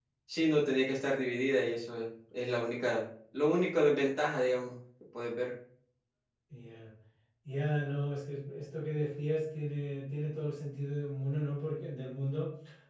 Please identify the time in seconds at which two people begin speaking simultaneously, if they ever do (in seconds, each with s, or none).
none